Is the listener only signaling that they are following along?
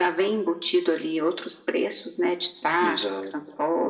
No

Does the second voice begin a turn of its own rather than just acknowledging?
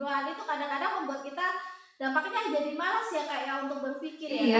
Yes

